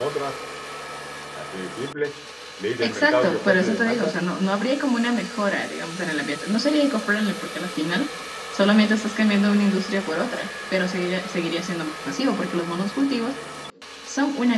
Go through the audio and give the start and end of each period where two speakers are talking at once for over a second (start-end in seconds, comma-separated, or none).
2.8-4.2